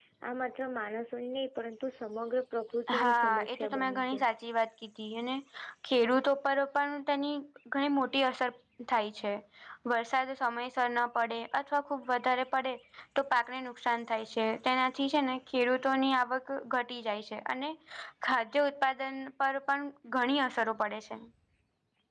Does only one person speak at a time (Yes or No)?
No